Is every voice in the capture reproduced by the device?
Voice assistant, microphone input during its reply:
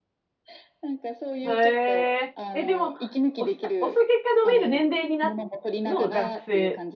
No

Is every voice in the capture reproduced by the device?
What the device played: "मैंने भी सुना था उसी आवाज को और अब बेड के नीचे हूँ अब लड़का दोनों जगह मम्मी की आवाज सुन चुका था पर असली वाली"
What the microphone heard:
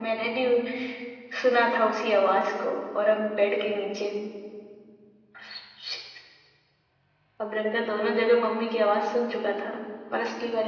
Yes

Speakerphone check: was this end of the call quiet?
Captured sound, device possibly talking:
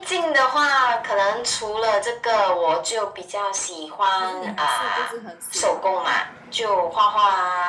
No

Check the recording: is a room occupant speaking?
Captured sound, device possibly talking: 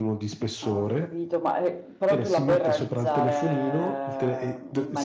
Yes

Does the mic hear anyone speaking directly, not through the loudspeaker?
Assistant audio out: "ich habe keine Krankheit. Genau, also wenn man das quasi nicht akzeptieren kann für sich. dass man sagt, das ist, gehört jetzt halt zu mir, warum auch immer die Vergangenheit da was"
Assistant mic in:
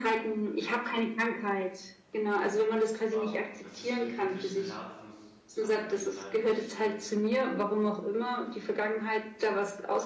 Yes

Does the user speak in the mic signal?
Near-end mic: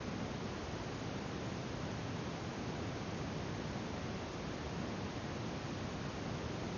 No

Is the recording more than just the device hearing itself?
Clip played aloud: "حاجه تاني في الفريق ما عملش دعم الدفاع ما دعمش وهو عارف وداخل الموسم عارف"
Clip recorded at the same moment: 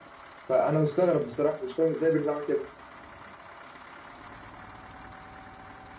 Yes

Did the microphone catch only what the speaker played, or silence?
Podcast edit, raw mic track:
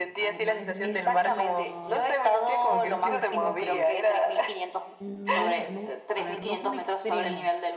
No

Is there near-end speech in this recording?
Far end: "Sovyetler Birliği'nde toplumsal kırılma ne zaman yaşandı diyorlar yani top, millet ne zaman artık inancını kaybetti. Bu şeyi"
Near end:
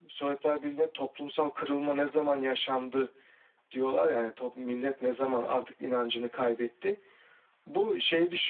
No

